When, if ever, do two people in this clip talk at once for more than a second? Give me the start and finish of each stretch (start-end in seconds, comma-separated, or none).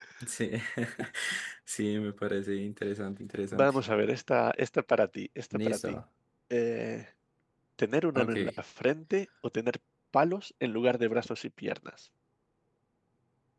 none